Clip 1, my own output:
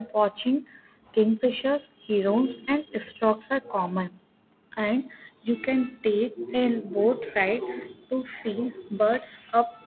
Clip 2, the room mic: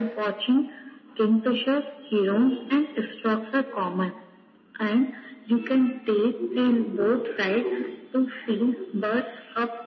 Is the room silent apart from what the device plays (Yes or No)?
Yes